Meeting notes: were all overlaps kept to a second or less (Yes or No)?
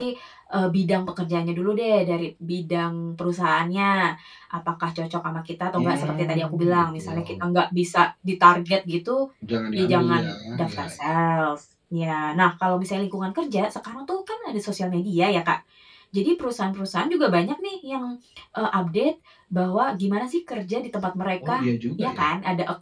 No